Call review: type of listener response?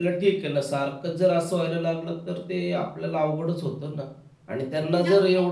listening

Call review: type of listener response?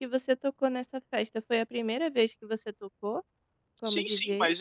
taking over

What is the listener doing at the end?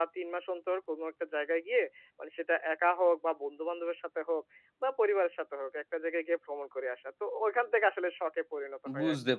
taking over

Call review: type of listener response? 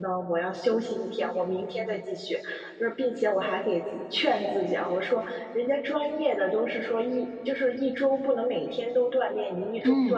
listening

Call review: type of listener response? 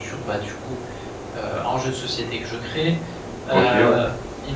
listening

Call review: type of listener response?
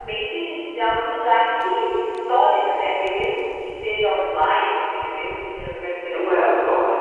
taking over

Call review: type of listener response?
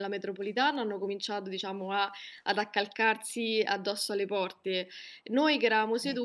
listening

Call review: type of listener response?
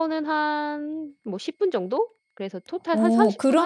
taking over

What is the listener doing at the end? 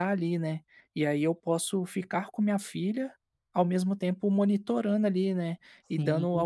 listening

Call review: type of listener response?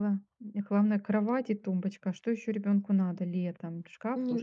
taking over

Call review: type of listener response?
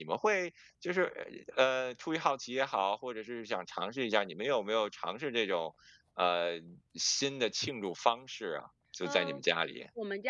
taking over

